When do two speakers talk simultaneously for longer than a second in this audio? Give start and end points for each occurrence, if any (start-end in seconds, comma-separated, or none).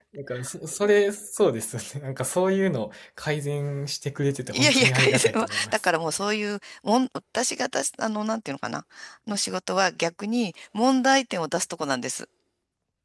4.5-5.9